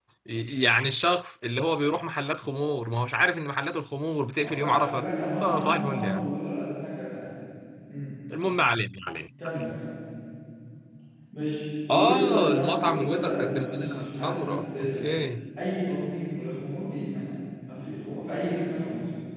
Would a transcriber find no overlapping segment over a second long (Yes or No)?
No